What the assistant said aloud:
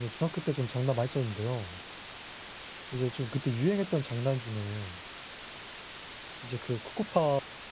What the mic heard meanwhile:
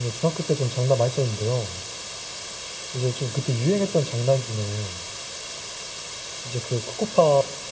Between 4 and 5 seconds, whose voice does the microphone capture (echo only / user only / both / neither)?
echo only